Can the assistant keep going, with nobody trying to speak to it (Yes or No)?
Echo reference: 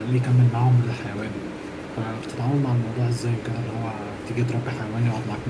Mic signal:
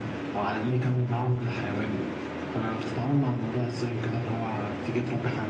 Yes